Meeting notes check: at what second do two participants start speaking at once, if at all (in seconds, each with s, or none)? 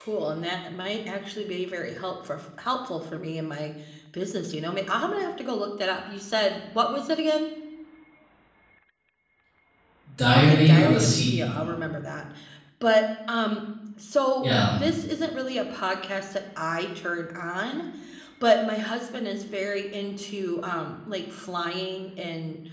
10.3 s